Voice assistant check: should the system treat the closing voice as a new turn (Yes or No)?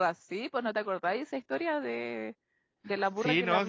Yes